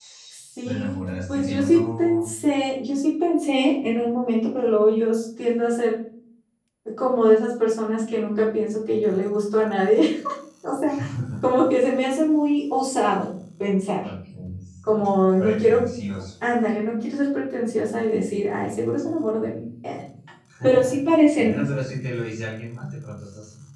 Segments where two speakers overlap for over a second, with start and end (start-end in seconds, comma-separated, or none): 0.7-2.3